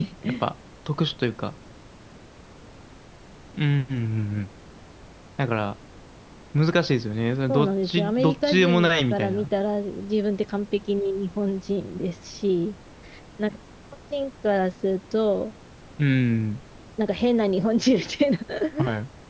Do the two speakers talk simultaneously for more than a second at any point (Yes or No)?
Yes